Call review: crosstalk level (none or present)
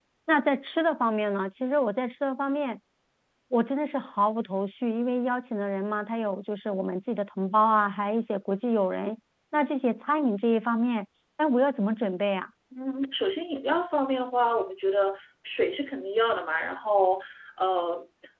none